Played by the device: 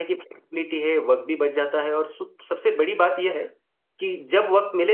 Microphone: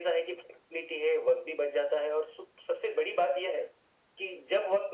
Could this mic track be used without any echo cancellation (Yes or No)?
No